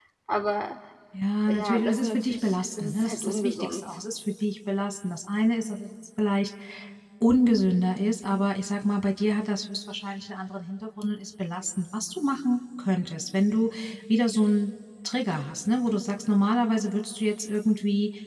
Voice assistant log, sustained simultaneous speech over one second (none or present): present